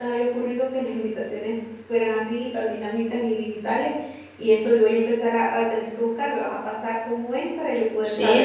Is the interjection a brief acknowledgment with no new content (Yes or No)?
No